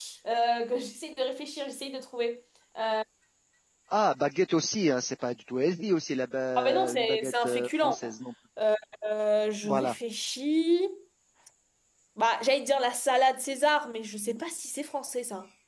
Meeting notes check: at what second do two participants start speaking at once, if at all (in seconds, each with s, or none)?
6.6 s